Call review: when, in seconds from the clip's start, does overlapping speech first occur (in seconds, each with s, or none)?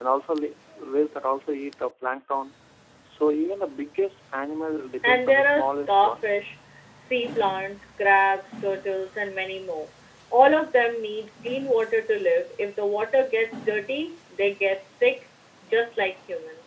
5.0 s